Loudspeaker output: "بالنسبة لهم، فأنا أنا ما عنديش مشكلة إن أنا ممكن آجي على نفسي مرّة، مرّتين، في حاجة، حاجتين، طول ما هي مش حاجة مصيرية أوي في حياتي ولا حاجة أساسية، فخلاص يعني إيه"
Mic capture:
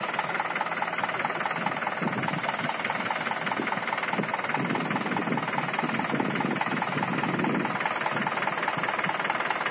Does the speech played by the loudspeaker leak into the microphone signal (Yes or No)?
No